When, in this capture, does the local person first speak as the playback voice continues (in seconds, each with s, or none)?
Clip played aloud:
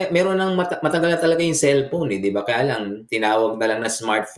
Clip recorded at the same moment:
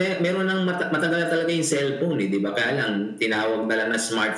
none